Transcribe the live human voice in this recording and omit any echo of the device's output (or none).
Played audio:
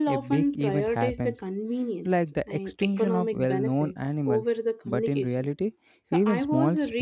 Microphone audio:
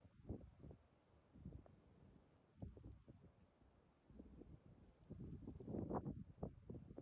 none